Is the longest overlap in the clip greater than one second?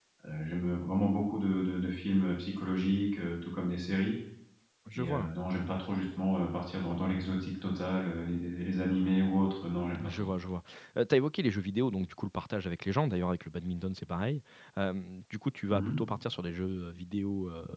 No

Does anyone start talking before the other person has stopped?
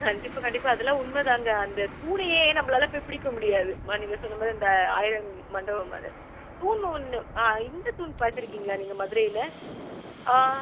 No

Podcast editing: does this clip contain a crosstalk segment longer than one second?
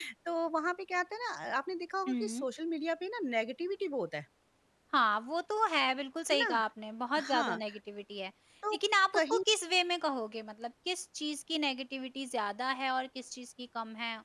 No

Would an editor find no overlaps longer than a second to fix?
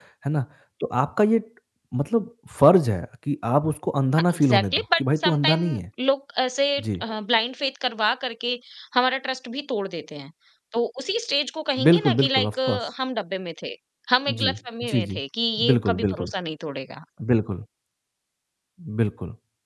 No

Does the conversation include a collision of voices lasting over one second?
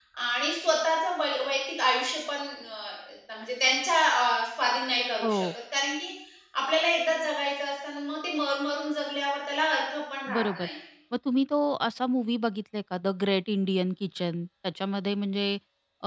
No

